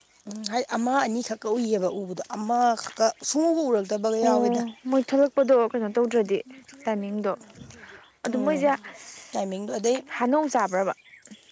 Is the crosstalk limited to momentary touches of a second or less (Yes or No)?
Yes